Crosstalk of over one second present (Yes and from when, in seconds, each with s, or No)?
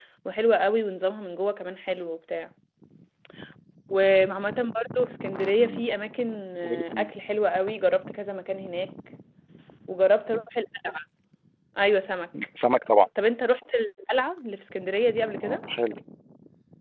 No